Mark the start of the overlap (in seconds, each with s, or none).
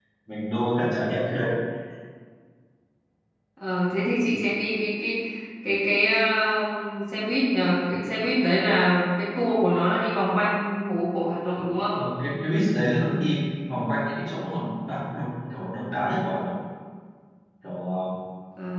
none